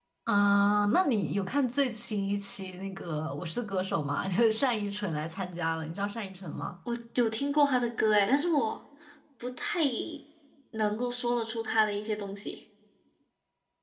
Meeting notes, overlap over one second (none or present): none